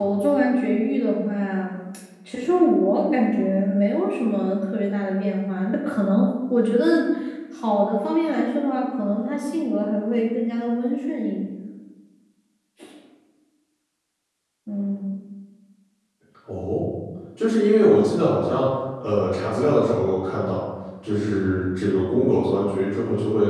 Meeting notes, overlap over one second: none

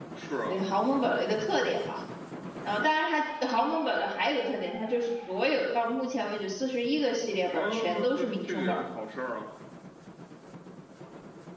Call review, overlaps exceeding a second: present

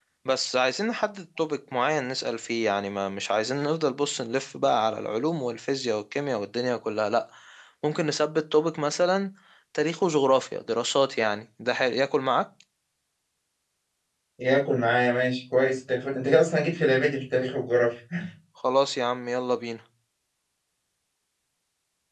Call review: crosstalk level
none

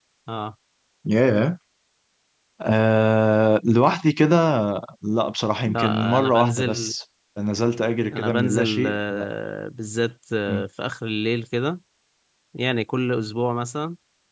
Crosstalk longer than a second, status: present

